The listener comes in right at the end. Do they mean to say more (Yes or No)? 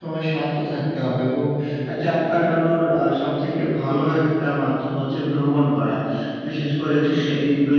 No